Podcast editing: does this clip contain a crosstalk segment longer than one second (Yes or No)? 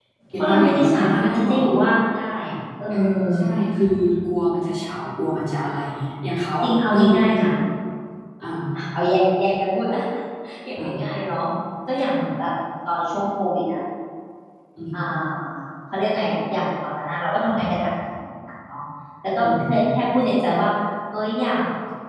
Yes